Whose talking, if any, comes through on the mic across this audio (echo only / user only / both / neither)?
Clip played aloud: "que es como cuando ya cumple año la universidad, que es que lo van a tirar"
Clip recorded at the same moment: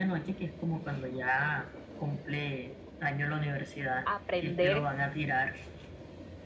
both